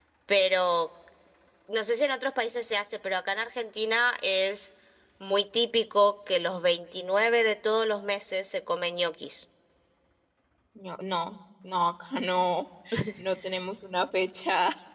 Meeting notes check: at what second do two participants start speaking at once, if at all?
none

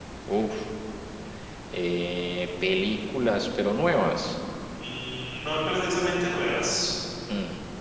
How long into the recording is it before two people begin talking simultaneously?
none

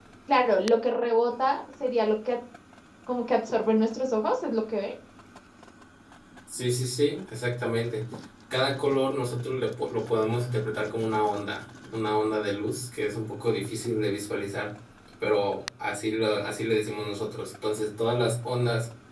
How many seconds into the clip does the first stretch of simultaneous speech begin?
none

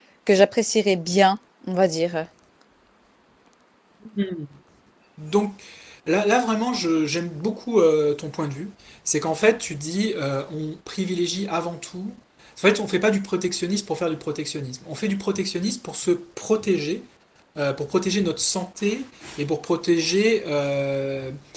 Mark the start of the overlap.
none

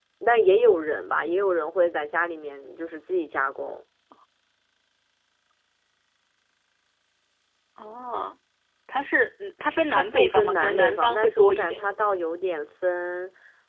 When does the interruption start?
9.9 s

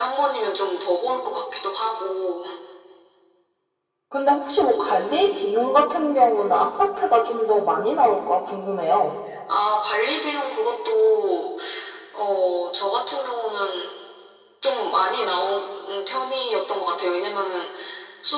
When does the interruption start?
none

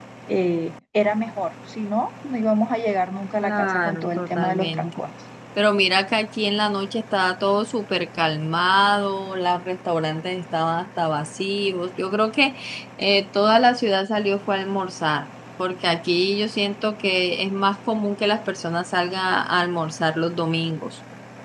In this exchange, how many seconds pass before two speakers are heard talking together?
3.4 s

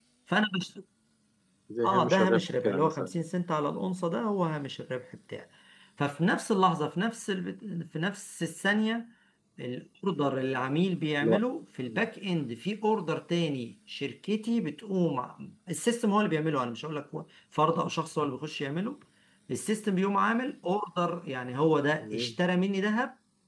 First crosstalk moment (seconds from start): 1.8 s

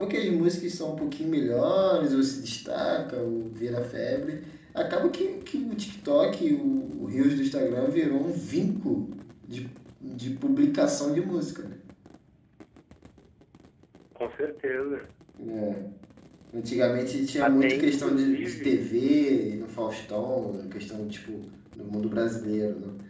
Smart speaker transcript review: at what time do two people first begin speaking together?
17.4 s

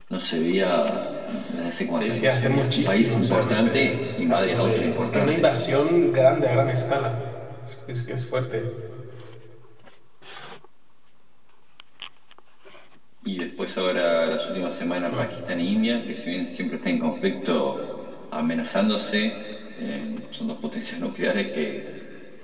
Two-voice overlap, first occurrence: 2.0 s

